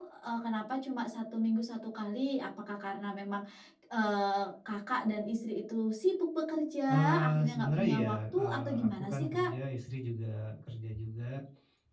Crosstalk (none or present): present